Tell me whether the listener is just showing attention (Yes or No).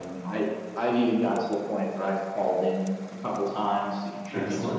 Yes